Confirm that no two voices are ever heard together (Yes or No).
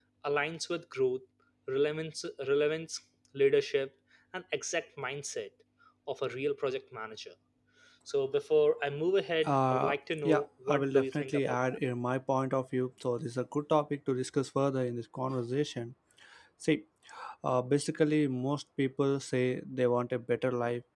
No